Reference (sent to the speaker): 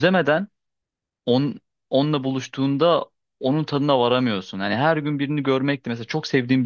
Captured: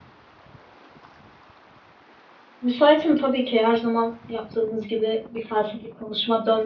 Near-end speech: present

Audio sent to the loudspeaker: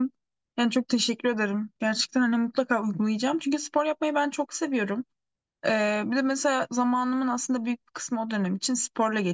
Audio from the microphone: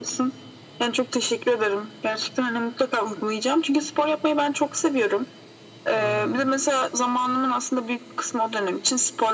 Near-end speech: present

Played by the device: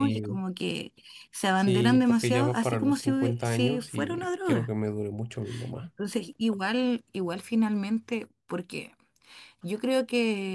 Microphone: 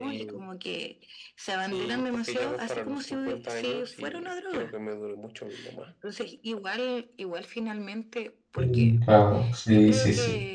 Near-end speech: present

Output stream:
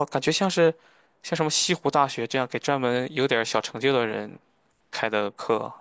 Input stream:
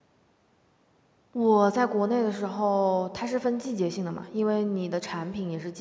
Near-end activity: present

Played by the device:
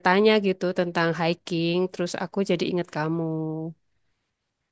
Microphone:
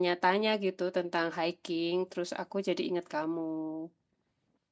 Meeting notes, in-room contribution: none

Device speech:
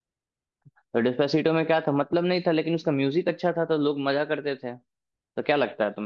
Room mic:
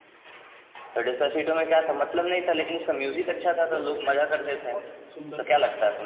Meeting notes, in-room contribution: present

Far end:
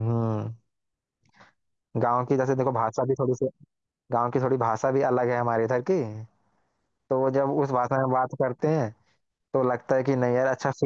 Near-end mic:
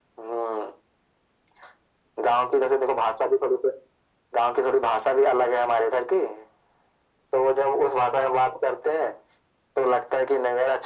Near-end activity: none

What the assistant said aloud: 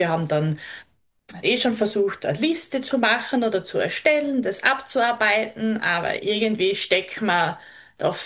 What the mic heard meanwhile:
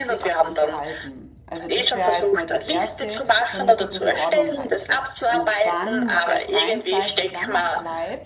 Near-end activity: present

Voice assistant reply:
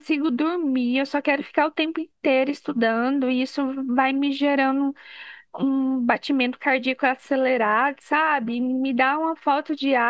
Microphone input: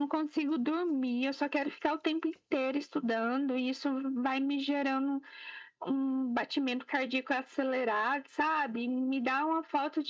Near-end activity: none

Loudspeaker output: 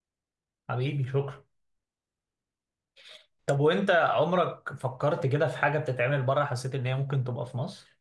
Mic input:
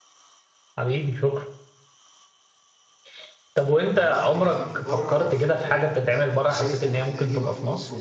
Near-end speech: present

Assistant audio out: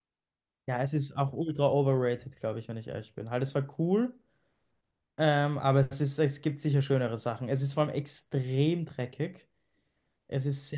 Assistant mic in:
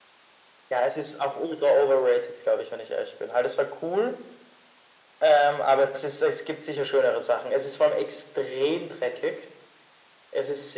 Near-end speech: none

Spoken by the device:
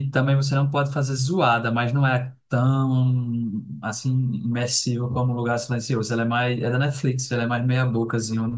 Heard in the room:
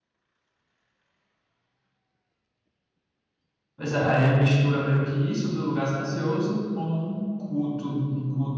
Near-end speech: present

